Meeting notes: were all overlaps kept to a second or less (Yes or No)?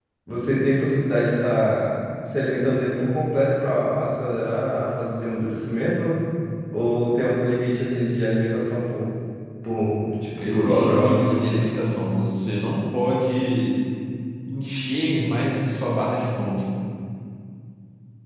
No